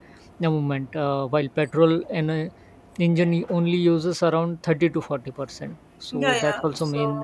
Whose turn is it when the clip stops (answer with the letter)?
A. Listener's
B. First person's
A